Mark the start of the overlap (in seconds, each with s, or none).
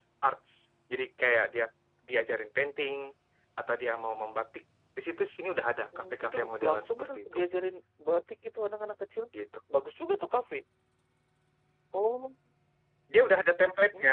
5.9 s